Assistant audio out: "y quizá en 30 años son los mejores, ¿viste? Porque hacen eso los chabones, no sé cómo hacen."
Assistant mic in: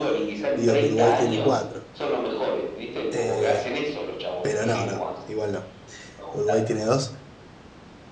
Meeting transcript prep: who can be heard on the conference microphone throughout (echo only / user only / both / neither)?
both